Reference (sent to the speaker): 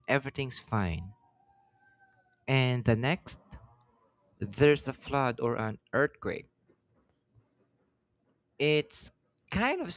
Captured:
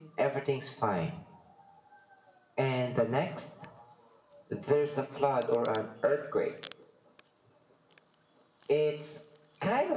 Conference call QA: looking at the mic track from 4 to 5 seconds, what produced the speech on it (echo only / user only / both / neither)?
echo only